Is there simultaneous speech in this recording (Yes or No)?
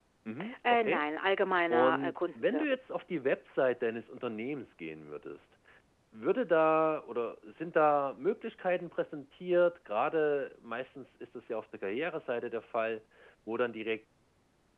Yes